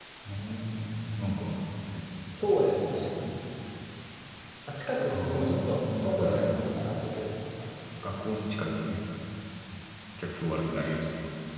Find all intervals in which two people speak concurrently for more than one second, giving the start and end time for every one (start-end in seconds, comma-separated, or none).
5.1-6.5